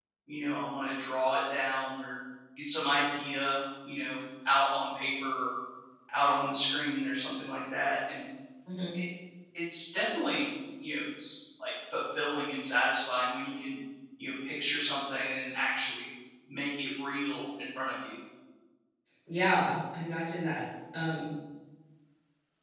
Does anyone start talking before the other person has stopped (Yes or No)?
No